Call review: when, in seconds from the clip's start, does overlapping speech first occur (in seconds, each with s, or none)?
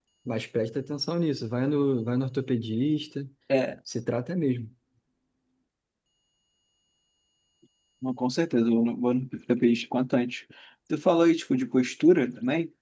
none